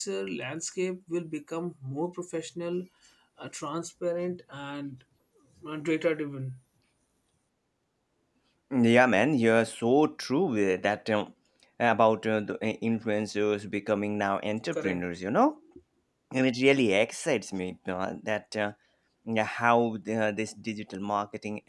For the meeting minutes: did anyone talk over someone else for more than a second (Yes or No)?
No